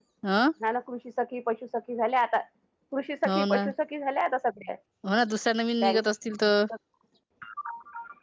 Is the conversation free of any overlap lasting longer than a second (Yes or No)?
Yes